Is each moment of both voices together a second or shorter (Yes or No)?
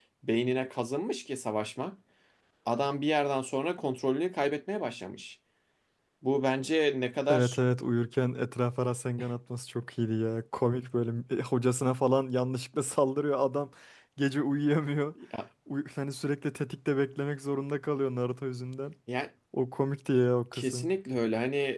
Yes